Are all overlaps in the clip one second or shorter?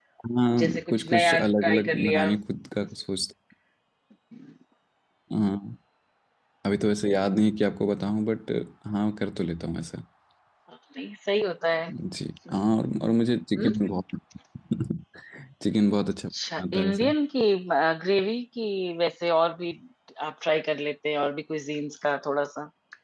No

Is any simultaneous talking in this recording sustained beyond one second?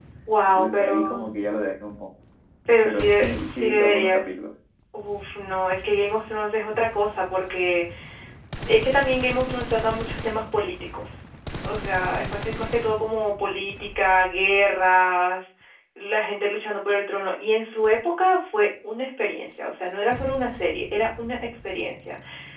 Yes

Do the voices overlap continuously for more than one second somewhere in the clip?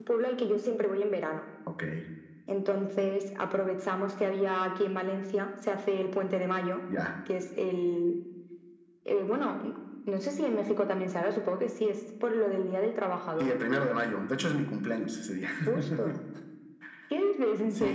No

